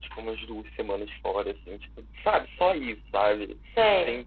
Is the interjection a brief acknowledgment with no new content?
Yes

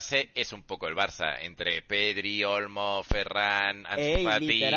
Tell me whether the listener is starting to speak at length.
Yes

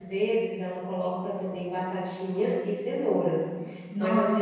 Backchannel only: No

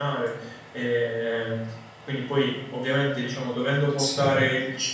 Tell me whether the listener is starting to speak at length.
No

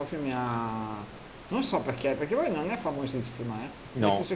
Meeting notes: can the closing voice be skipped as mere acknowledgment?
Yes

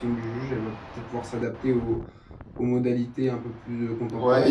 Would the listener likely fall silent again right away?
No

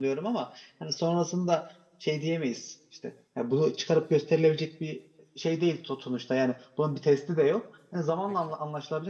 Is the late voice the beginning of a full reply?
No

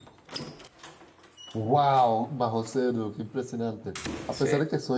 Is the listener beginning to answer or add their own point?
No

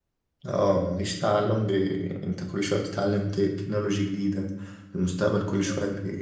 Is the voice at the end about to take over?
No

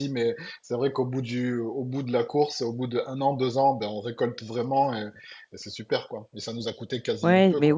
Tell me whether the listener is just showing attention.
No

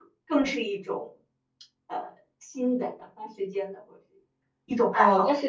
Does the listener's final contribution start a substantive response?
Yes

